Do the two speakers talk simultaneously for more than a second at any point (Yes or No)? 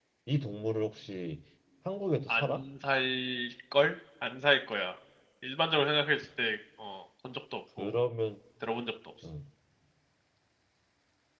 No